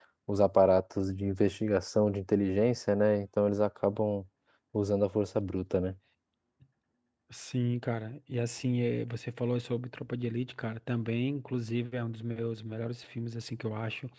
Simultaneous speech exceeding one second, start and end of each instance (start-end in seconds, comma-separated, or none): none